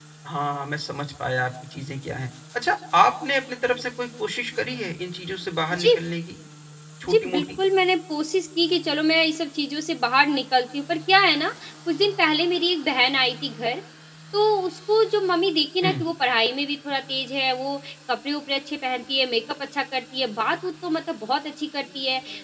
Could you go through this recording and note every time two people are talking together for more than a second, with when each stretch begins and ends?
none

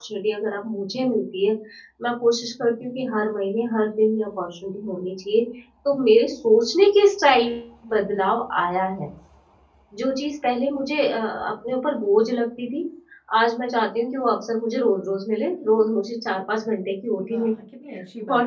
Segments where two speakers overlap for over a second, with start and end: none

